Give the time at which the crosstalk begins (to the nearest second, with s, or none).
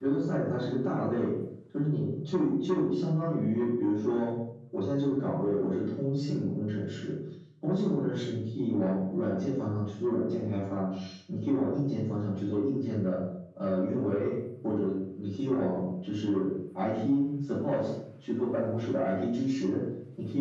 none